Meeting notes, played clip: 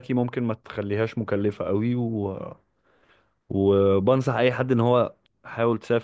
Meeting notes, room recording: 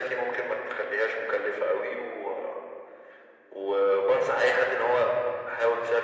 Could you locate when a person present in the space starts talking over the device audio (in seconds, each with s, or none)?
none